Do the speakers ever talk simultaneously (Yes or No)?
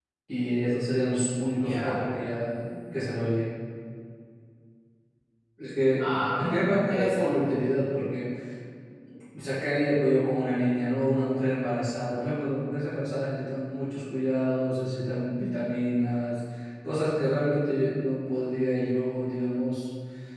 Yes